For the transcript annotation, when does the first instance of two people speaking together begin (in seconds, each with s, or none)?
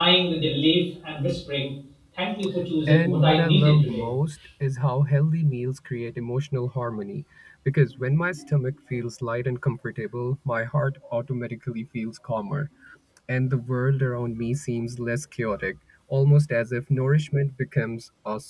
2.9 s